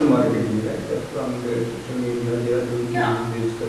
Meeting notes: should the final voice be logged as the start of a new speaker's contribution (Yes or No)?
No